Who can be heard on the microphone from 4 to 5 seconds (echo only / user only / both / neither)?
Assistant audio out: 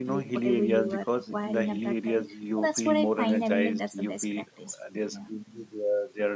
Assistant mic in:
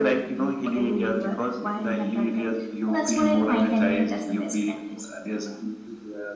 echo only